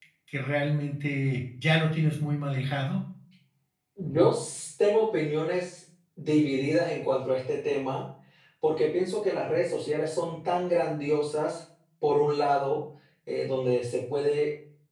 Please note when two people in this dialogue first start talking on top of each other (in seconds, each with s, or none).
none